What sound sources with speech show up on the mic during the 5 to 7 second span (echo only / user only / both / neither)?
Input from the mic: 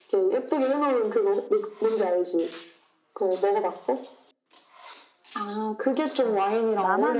both